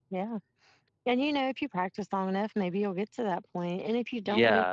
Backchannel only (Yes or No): No